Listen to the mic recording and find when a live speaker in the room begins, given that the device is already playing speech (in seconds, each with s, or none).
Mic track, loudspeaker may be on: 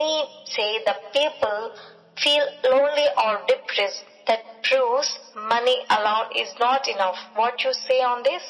none